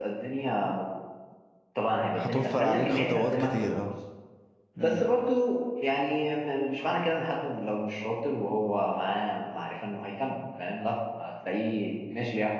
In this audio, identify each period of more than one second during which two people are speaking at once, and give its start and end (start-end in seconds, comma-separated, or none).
2.2-3.7